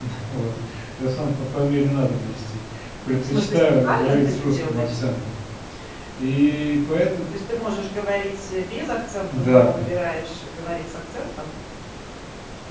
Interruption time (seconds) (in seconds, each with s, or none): 3.3 s